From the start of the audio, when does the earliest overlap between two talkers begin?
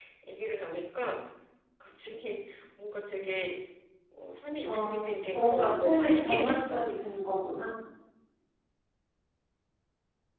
4.6 s

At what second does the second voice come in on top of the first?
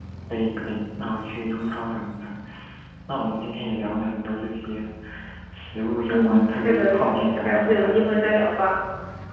6.1 s

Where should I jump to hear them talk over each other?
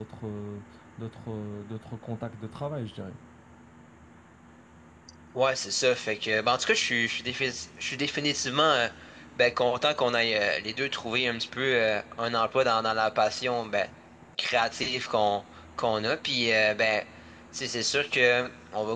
none

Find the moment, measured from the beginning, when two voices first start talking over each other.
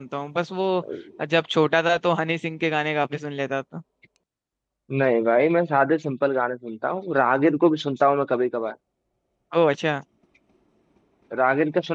none

